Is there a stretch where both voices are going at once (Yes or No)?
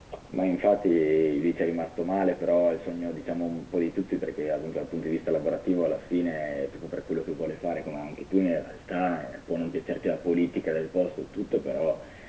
No